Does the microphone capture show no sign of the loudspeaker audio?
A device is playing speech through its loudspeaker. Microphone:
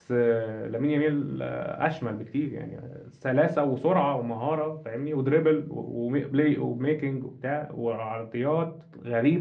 Yes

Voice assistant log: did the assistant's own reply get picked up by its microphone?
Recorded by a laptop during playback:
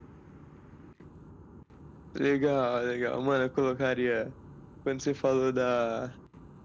Yes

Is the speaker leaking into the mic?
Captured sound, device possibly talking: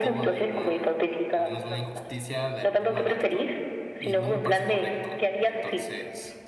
Yes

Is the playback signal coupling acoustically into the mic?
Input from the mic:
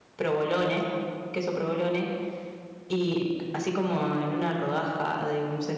No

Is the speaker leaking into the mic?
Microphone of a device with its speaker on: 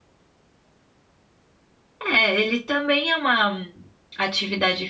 No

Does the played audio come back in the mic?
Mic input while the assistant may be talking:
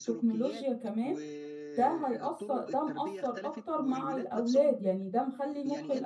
Yes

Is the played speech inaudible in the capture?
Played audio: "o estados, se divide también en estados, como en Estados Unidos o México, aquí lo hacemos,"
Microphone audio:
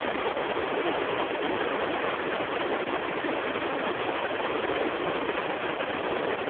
Yes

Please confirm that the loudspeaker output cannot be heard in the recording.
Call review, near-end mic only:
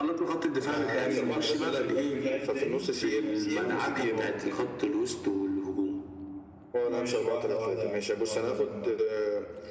No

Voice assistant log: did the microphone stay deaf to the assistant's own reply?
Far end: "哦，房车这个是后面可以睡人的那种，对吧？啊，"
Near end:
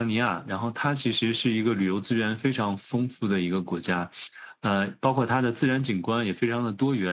Yes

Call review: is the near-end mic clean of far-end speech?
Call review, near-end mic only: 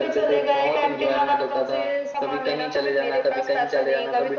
No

